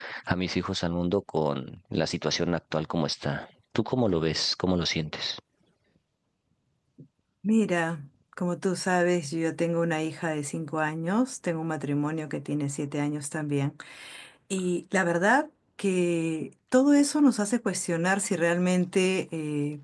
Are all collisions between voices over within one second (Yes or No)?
Yes